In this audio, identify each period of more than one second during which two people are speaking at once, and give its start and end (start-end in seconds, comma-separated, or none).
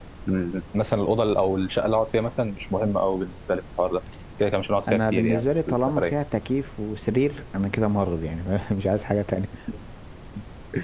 4.9-6.1